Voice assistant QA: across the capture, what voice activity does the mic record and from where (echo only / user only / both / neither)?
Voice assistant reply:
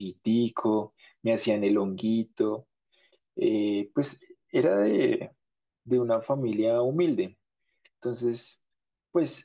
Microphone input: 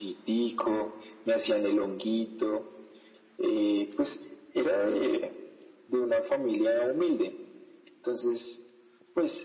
echo only